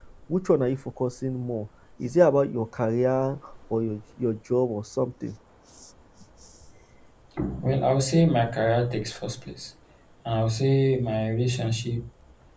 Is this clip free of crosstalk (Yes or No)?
Yes